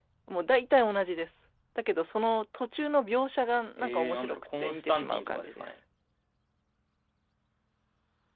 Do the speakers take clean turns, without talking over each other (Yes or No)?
No